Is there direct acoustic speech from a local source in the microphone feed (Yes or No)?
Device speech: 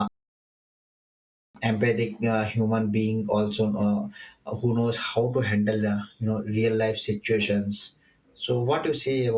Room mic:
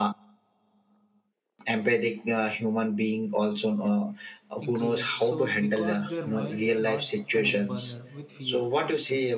Yes